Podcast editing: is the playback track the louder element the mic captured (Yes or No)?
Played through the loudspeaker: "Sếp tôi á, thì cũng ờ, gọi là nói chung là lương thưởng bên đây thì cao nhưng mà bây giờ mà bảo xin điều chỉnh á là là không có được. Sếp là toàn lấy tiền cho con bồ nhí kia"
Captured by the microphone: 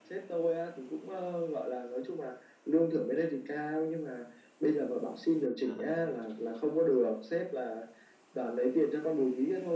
Yes